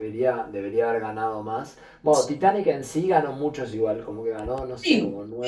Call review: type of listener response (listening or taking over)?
taking over